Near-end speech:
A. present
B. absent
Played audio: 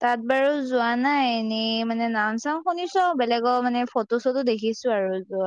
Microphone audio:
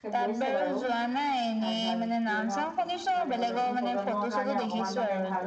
A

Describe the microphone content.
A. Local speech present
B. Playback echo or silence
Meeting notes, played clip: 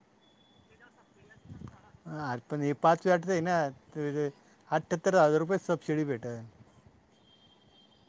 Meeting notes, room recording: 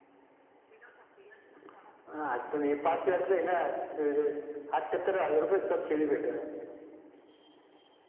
B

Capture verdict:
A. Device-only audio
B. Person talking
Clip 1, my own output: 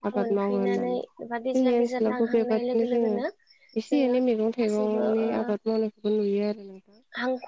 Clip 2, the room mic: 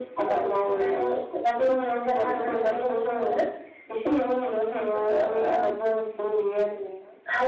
A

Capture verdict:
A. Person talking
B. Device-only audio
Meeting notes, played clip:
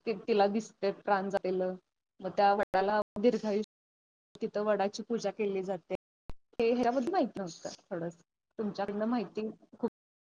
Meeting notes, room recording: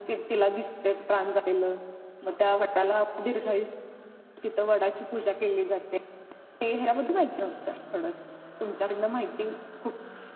B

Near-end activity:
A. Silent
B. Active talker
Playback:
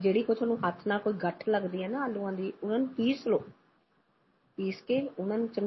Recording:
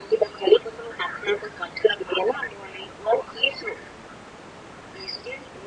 A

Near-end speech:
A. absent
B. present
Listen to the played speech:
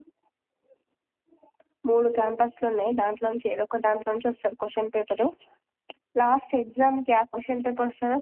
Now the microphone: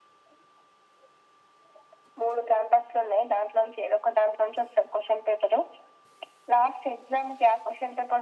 A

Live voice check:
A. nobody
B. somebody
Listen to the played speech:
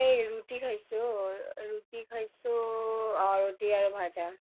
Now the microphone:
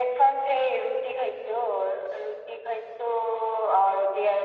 A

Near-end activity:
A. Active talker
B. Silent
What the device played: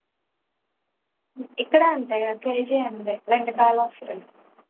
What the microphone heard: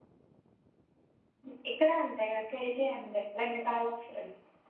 B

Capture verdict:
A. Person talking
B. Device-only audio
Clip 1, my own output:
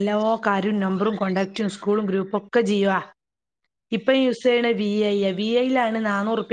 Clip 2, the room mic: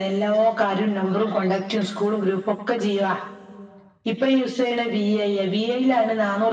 B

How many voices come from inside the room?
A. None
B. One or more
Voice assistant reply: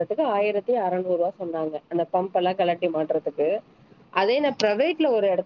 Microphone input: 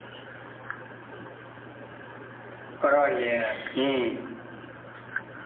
B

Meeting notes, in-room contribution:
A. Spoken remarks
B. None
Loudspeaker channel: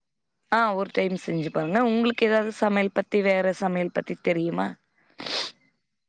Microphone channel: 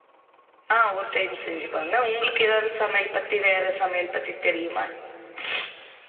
B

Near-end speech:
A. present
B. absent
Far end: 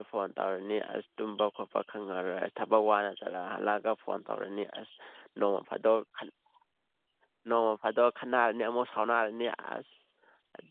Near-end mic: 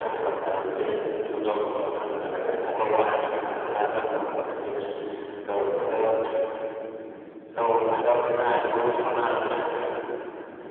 B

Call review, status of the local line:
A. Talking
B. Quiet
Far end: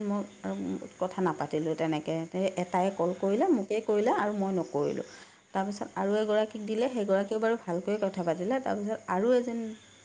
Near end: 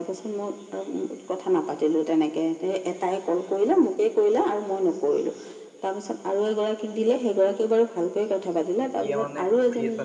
A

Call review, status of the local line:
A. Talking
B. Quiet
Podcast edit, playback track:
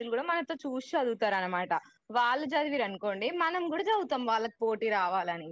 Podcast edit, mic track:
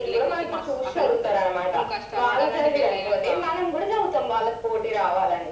A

